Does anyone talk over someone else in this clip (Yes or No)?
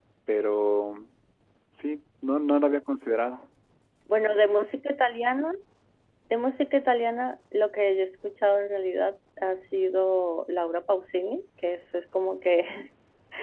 No